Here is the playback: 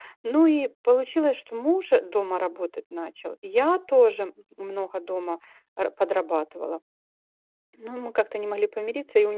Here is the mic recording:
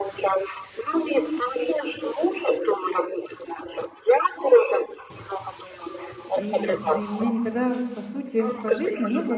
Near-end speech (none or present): present